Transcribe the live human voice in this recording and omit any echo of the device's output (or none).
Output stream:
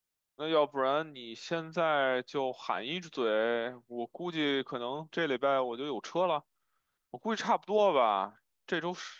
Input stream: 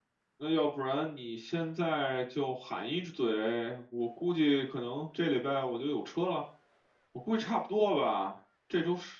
none